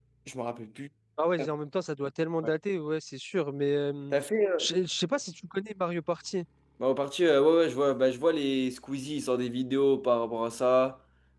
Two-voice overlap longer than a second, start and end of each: none

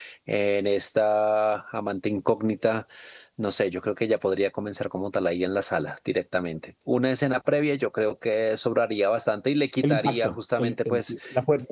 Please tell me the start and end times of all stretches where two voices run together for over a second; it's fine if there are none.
9.9-11.1

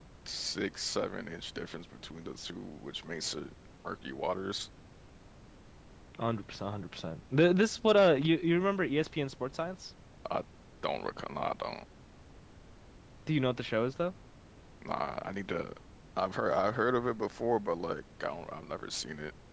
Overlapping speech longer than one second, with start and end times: none

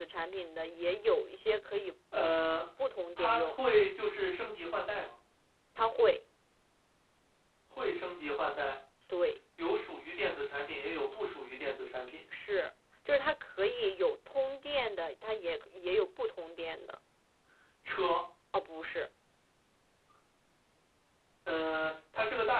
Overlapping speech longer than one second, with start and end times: none

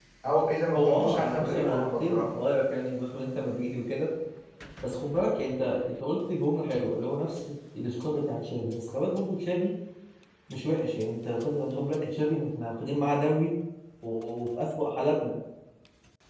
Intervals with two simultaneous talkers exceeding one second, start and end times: 0.7-2.3

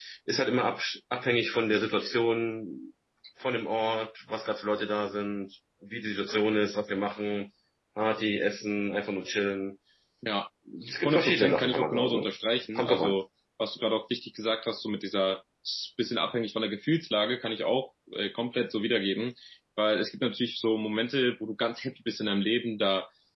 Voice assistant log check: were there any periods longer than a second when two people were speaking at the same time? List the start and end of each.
11.1-12.3

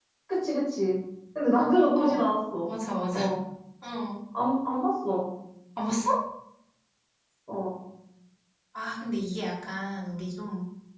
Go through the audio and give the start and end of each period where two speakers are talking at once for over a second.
none

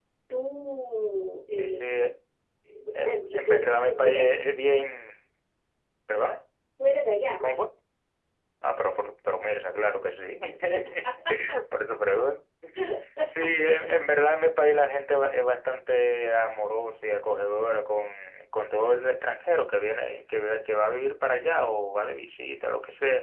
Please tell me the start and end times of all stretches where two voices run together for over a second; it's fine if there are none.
3.0-4.2

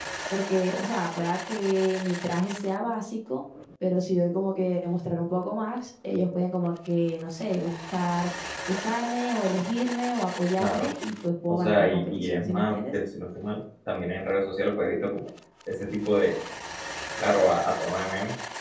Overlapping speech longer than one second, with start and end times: 11.5-12.9

